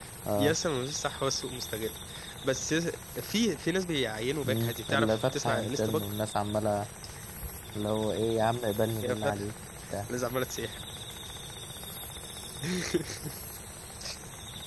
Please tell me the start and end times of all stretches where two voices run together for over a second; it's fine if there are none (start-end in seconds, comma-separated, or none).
4.4-6.0